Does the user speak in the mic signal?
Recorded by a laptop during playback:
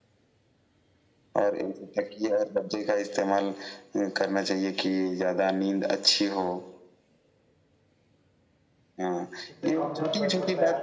Yes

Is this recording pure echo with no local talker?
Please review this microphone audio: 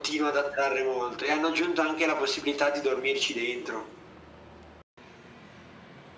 Yes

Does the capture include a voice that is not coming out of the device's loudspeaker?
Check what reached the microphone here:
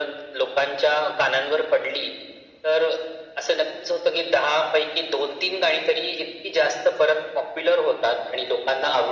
No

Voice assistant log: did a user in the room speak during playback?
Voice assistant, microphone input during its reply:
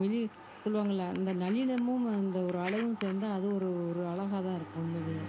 Yes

